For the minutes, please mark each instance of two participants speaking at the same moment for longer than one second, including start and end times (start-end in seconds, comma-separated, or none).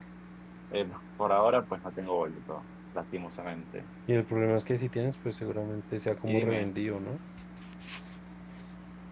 none